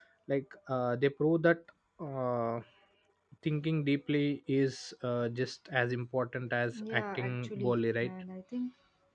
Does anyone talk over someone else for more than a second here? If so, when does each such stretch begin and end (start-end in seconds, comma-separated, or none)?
6.8-8.1